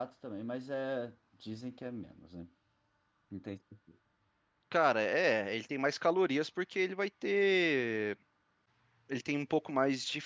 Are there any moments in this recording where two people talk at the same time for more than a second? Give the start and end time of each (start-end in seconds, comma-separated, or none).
none